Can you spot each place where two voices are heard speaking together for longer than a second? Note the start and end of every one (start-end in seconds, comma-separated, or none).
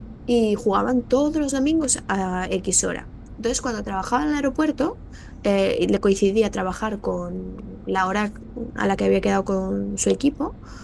none